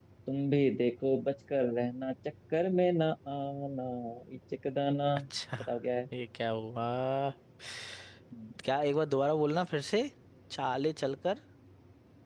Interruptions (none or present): none